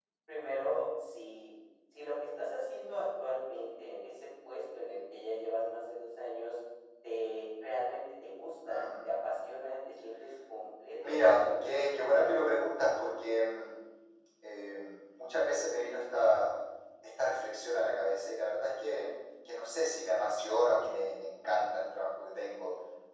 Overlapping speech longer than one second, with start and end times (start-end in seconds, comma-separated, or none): 11.0-12.3